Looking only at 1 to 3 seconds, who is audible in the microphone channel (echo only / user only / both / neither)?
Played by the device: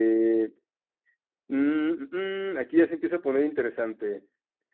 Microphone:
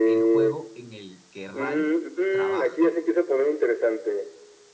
both